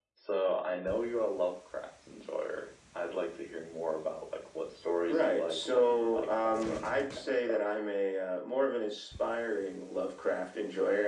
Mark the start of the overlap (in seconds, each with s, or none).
5.1 s